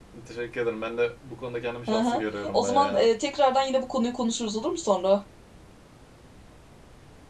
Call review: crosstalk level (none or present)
present